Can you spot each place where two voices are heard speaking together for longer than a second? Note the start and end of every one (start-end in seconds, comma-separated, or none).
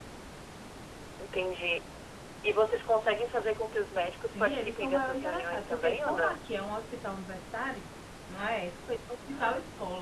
4.2-6.4